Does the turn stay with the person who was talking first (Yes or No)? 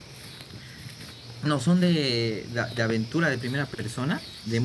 No